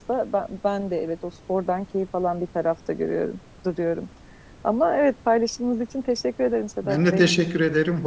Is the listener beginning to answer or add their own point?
Yes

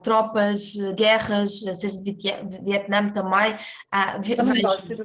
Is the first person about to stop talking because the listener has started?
Yes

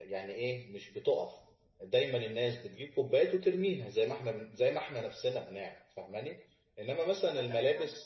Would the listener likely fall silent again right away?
Yes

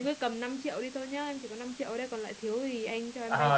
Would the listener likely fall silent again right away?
No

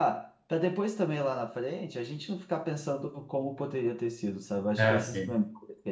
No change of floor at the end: Yes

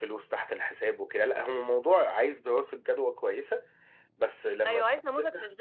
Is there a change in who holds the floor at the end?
Yes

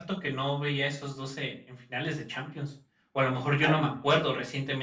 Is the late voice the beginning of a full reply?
No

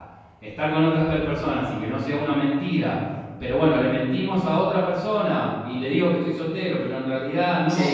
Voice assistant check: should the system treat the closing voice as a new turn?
Yes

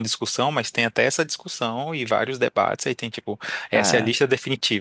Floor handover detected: No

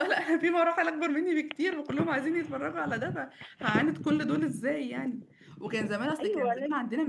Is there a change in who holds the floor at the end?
No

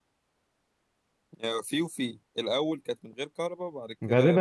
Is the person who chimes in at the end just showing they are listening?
No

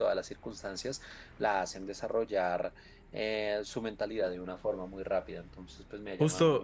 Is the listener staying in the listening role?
No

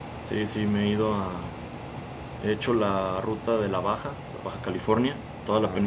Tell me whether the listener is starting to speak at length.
No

